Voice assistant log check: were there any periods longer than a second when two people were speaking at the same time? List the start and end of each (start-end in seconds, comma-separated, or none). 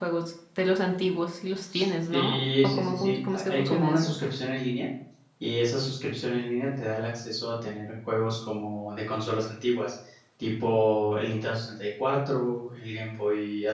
2.1-4.1